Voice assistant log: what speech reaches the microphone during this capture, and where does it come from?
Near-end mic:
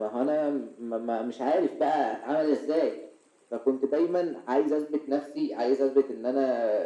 echo only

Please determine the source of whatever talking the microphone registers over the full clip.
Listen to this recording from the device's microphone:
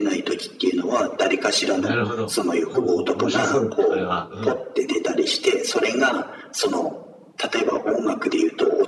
both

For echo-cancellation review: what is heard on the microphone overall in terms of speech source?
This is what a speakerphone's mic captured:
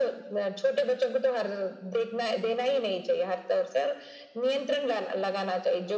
echo only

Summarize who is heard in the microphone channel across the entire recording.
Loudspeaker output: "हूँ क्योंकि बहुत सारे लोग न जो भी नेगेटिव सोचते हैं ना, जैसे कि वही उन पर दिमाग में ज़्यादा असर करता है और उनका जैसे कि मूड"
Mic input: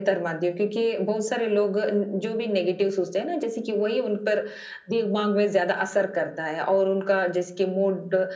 echo only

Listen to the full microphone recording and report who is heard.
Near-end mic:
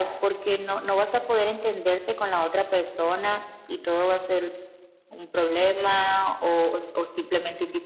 echo only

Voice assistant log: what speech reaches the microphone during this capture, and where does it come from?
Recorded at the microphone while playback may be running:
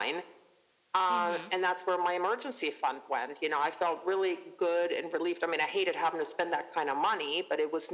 both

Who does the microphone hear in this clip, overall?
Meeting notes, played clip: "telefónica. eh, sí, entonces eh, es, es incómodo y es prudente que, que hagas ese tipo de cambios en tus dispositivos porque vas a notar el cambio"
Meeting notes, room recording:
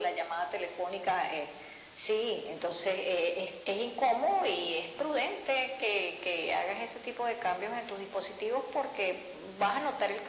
echo only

